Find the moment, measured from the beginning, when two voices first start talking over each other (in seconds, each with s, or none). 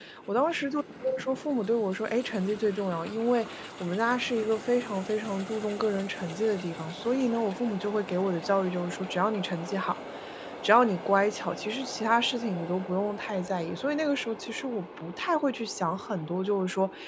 none